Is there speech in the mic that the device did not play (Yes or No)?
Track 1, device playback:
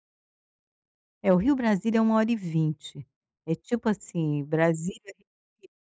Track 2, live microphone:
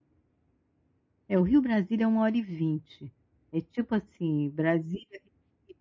No